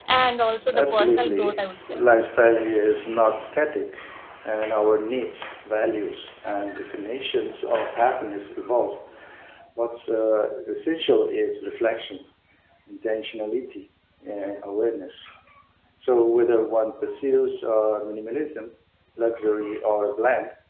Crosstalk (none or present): present